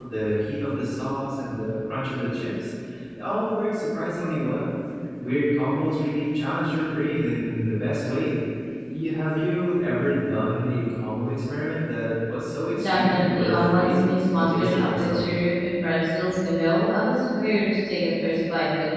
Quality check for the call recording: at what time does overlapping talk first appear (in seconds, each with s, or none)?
12.7 s